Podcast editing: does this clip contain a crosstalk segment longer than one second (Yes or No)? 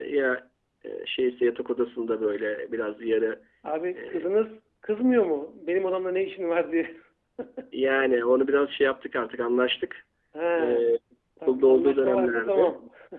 Yes